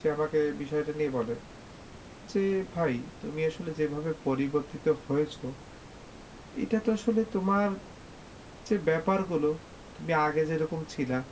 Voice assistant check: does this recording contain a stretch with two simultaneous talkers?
No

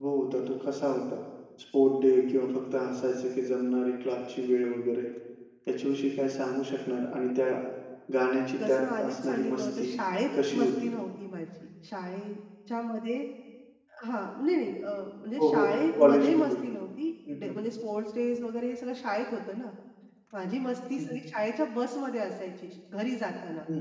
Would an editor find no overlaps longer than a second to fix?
No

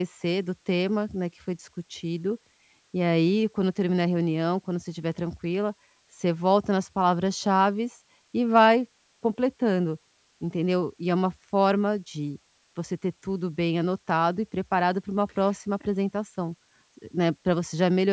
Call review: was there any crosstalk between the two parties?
No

